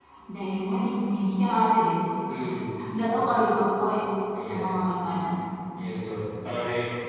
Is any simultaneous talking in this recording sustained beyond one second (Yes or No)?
No